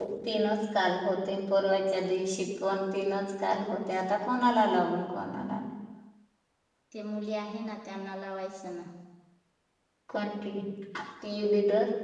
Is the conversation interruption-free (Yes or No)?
Yes